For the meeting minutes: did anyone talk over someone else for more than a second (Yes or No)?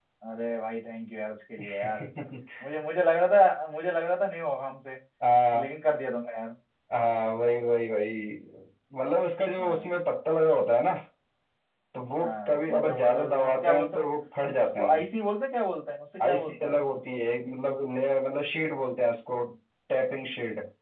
Yes